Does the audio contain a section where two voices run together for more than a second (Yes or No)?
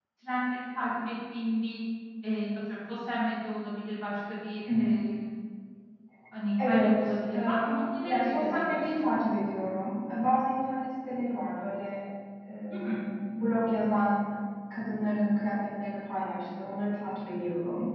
Yes